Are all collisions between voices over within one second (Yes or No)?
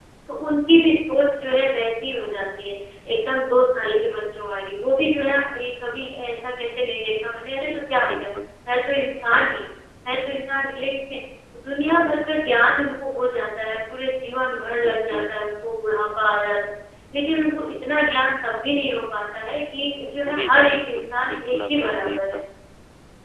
No